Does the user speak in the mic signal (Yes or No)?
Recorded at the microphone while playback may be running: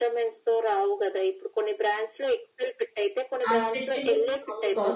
Yes